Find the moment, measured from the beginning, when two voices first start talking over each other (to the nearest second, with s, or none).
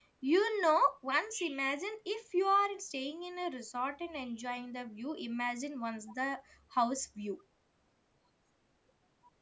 none